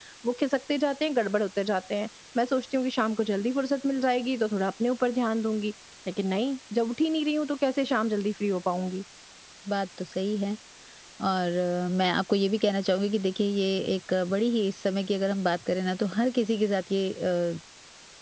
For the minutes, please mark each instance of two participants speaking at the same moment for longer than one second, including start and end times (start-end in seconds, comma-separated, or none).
none